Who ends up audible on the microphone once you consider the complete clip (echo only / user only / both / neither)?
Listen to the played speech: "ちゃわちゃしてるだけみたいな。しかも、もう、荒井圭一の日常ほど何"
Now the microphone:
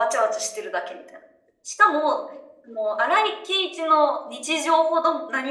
echo only